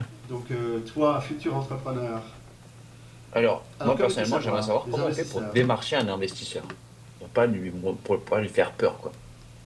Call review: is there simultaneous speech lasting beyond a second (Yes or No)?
Yes